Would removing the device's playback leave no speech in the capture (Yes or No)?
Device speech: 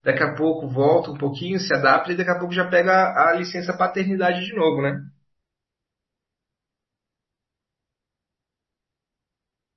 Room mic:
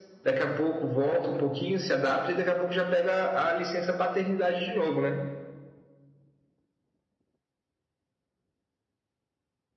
Yes